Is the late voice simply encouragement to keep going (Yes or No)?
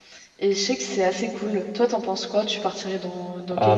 No